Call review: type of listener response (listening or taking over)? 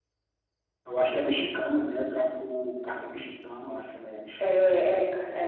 taking over